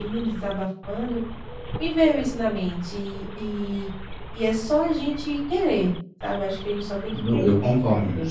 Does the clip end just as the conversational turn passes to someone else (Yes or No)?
Yes